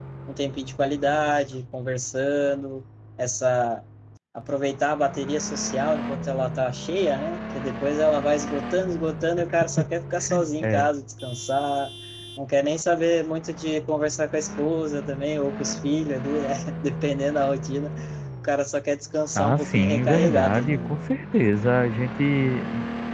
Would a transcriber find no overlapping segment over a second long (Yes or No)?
No